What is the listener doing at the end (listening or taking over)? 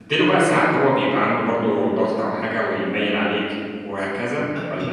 taking over